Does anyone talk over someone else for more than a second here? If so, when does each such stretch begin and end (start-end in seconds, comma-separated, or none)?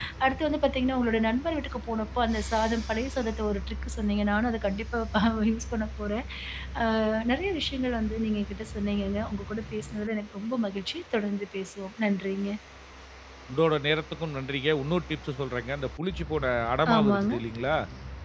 none